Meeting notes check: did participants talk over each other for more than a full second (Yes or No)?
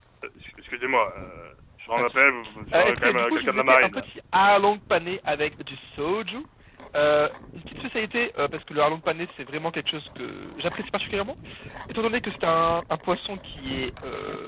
Yes